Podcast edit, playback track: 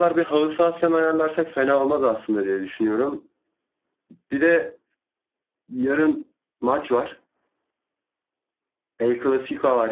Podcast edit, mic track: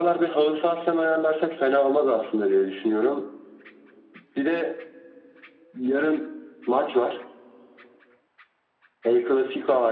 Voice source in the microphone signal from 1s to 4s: echo only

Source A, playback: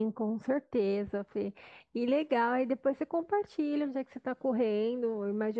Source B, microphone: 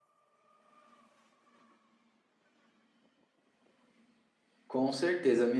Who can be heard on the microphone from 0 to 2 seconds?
neither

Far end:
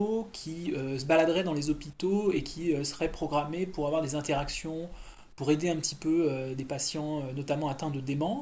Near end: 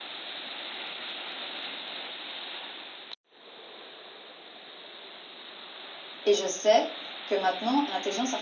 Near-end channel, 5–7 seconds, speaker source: user only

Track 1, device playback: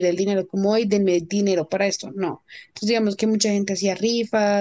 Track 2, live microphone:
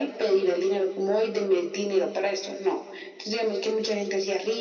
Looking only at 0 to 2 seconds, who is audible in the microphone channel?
echo only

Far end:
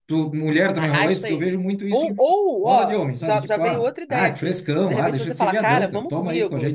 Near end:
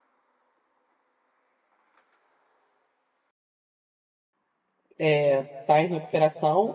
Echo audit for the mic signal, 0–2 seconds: neither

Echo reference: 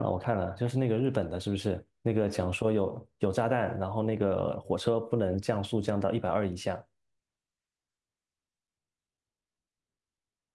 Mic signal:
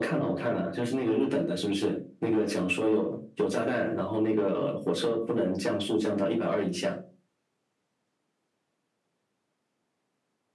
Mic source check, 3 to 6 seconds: echo only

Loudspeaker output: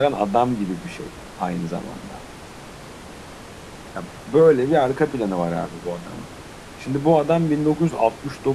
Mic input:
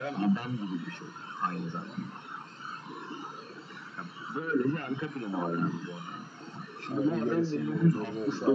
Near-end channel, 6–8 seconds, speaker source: both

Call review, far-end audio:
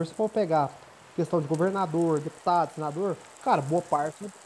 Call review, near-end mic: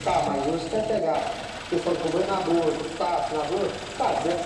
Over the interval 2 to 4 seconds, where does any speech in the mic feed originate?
echo only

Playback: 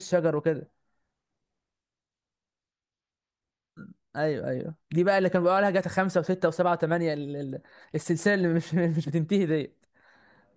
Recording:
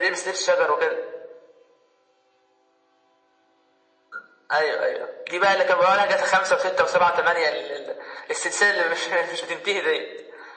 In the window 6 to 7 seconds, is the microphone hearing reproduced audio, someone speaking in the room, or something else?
echo only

